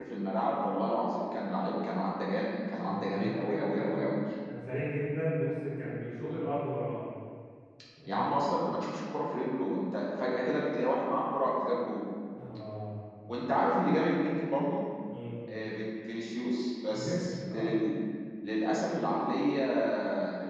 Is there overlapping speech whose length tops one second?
Yes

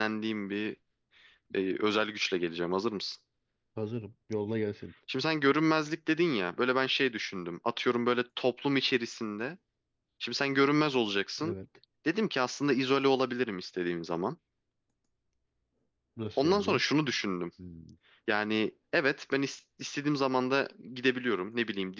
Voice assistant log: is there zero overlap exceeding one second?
Yes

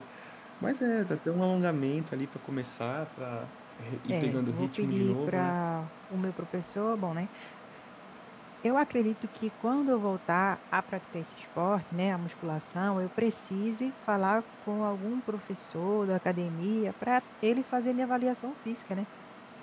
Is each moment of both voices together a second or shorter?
No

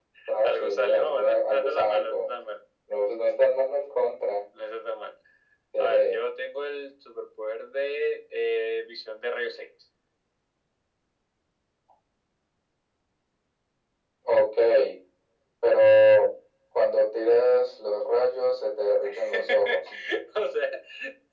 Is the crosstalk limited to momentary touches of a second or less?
No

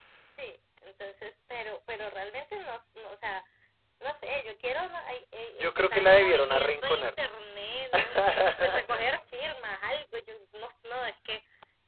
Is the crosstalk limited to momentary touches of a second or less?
No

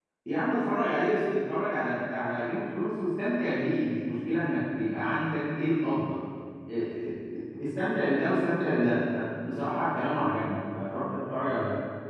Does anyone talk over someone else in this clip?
No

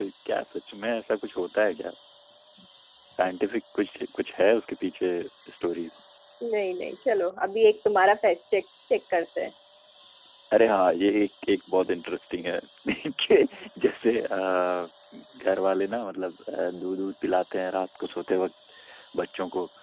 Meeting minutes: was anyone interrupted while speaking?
No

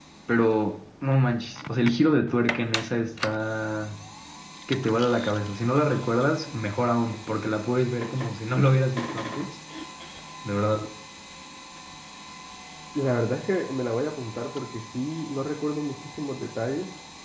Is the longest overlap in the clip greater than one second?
No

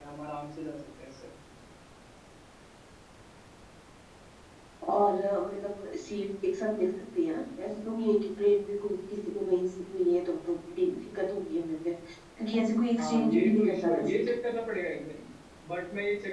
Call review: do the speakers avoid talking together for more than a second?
No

